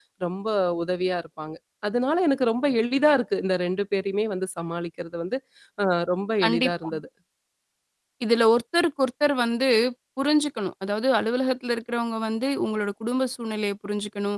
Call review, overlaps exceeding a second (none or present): none